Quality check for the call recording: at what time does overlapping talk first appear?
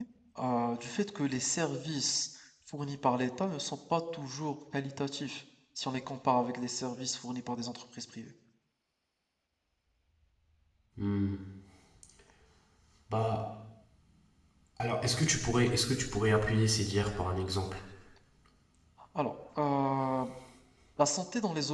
none

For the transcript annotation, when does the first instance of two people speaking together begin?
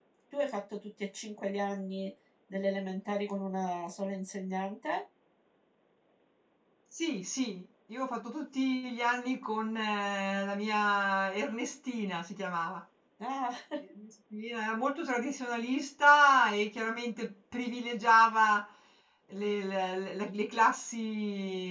none

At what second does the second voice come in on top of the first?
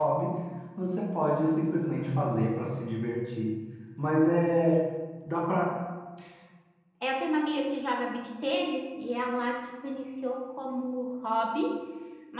none

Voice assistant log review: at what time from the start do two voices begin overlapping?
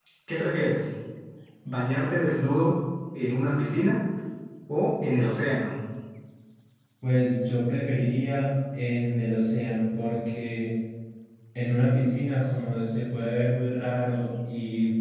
none

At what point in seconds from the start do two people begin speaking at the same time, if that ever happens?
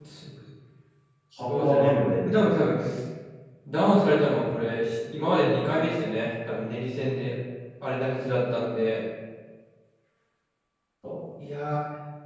1 s

